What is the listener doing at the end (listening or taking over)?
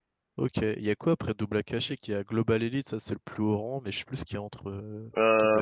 taking over